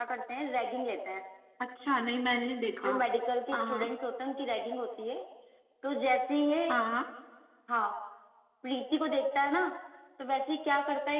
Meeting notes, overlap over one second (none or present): none